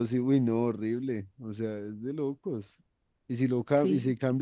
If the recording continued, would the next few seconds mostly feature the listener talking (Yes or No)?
No